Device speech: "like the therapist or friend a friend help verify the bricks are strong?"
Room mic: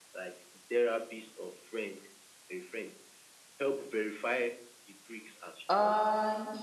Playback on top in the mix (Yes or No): No